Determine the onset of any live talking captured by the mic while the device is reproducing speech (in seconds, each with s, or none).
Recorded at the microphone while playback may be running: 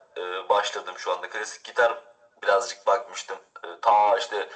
none